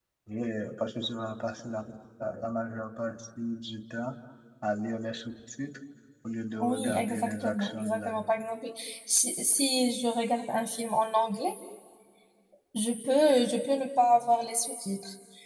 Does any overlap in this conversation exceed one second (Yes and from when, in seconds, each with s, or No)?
Yes, from 6.6 s